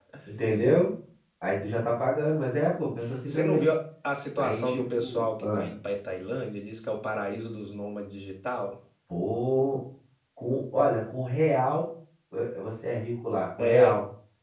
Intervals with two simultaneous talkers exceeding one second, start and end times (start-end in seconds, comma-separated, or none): 4.4-5.7